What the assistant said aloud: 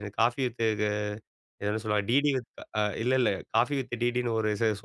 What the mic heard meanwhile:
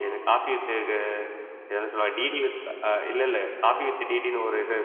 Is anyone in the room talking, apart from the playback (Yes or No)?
No